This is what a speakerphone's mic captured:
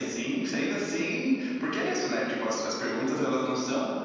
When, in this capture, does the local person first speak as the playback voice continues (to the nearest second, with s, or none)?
none